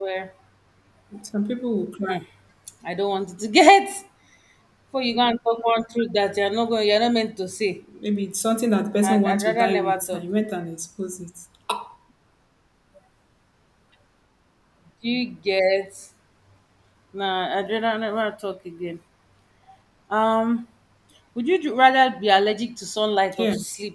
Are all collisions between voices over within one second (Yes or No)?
No